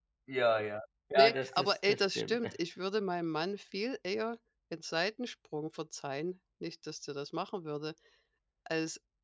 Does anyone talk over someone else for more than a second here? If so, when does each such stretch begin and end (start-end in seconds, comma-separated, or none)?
1.1-2.4